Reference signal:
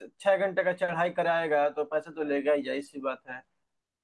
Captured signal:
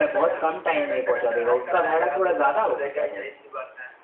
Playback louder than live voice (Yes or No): No